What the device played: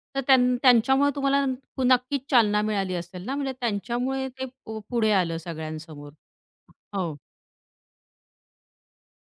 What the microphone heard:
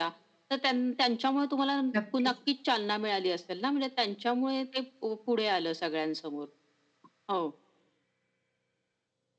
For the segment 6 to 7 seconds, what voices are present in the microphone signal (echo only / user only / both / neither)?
echo only